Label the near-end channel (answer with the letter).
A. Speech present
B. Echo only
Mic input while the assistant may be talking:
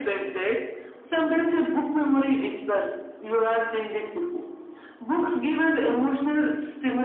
B